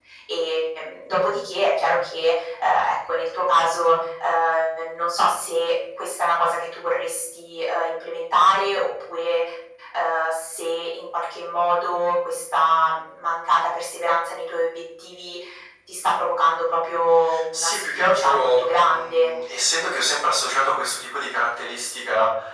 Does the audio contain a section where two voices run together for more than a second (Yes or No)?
Yes